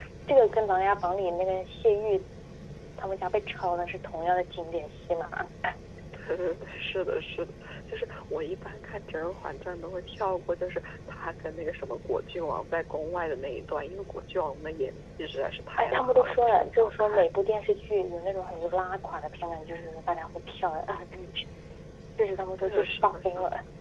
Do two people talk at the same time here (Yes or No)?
Yes